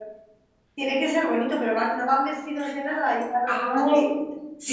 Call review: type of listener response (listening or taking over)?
taking over